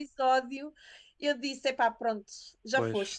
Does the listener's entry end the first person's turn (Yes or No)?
Yes